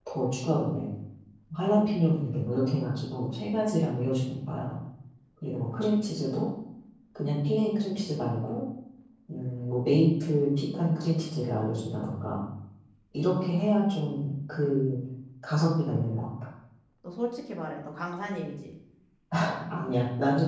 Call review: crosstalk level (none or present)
none